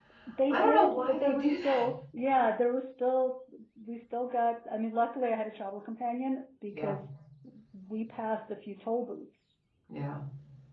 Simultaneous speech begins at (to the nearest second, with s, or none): 1 s